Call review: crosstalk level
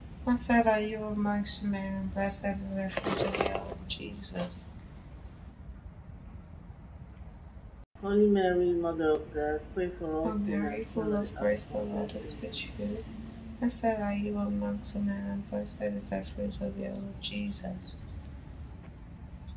present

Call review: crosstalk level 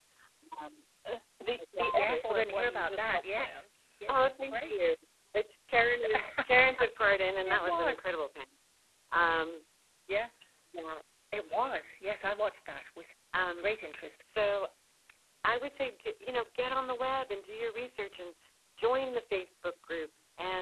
present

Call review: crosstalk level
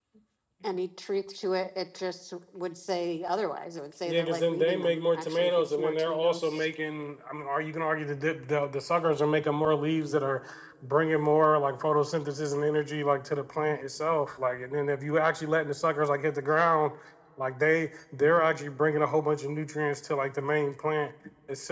present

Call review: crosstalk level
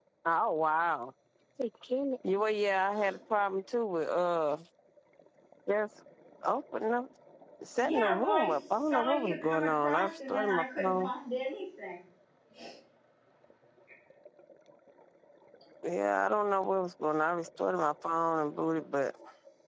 present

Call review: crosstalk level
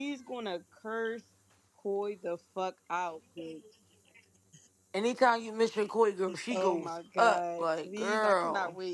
present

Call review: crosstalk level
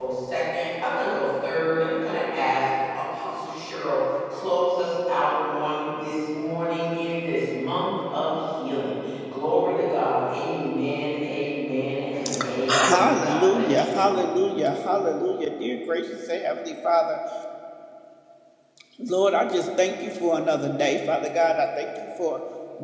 present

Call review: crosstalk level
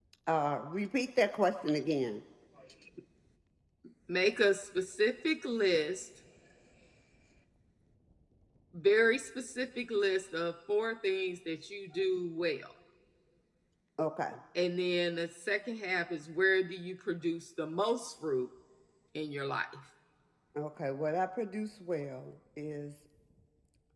none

